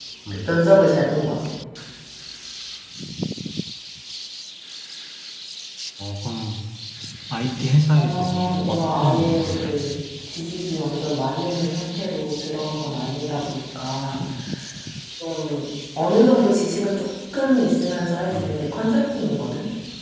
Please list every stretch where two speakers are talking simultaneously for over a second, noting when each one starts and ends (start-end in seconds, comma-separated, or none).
8.0-9.8